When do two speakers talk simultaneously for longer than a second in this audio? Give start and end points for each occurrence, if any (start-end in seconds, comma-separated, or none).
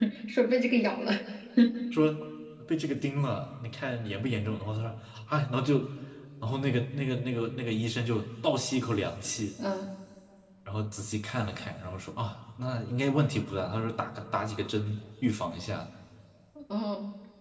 none